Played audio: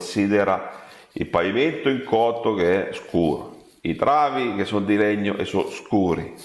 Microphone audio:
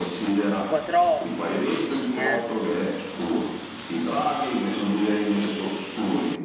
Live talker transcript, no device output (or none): un po' troppo, dici, eh?